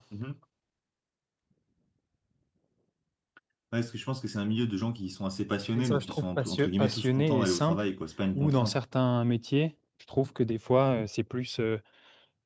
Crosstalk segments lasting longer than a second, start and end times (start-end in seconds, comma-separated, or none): 5.7-7.8